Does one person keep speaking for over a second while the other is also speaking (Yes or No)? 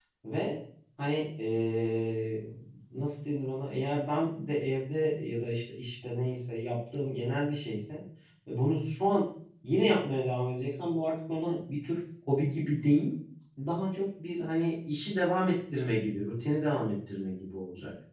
No